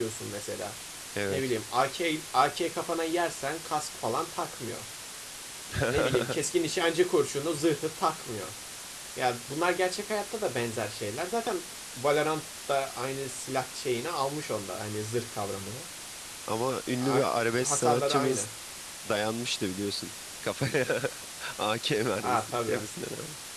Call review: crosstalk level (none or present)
present